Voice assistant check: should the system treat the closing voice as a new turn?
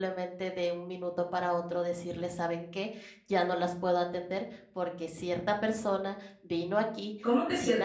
Yes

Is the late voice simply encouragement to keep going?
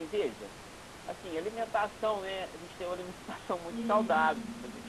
Yes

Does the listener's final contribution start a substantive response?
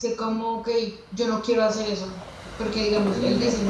No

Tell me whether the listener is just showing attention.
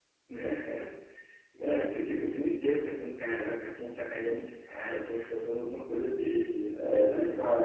No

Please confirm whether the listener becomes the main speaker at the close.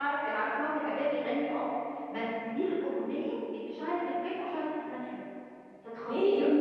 Yes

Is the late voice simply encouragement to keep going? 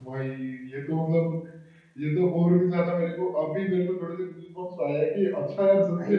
Yes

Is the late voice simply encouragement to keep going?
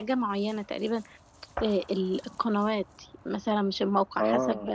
Yes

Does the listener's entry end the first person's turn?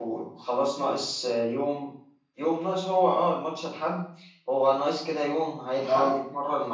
No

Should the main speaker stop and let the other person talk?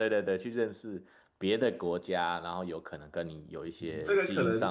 Yes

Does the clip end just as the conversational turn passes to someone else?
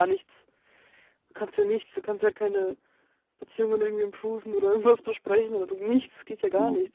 Yes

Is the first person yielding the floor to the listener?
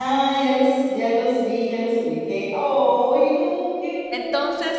Yes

